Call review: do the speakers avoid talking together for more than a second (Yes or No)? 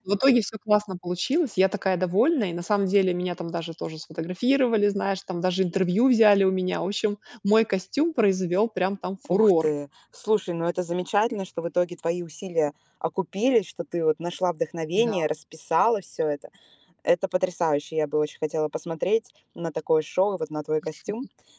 Yes